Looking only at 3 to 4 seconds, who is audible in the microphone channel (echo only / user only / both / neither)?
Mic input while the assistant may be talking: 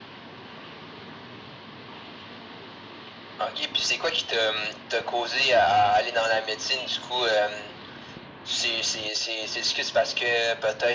echo only